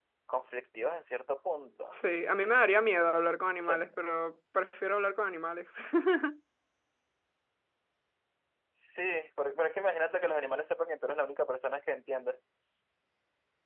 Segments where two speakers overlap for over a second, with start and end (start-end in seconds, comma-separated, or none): none